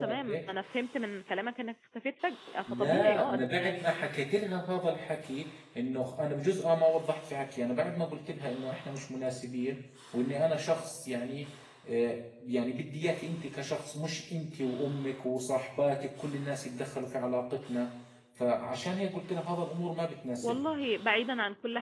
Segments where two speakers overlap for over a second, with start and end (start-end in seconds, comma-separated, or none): 2.7-4.1